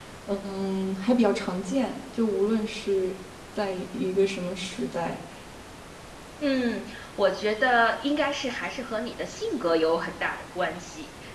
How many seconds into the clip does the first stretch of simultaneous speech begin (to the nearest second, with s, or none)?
none